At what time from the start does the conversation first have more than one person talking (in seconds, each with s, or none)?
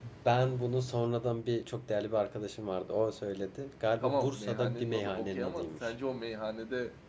4.0 s